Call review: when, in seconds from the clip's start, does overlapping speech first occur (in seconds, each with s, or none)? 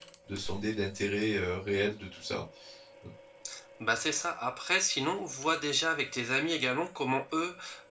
none